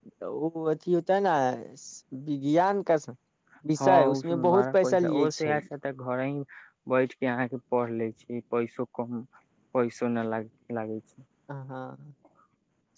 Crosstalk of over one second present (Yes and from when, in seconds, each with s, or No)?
Yes, from 3.8 s